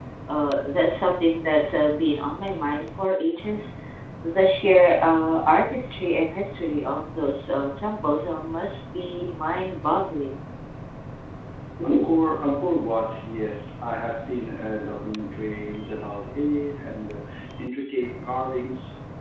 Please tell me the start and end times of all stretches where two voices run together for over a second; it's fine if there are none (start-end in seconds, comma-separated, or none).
none